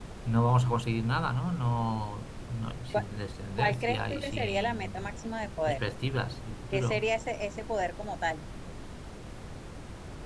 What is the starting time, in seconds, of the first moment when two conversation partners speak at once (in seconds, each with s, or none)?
3.6 s